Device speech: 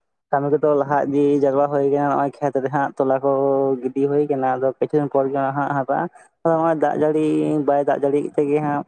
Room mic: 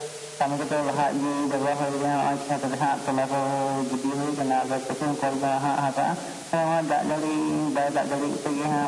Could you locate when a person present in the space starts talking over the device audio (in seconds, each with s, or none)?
none